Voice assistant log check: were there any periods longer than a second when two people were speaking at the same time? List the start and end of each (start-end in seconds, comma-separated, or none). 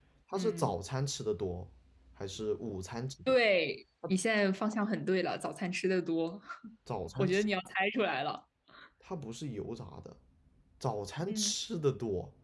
none